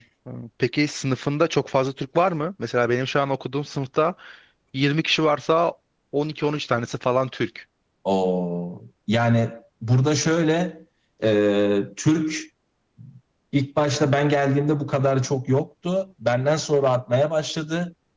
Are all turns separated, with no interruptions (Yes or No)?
Yes